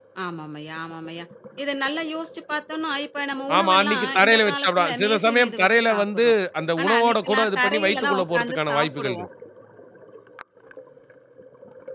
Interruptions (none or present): present